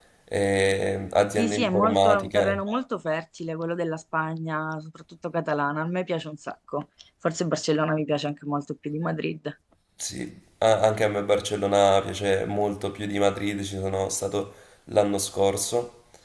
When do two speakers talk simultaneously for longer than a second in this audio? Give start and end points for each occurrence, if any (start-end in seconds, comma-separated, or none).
1.4-2.6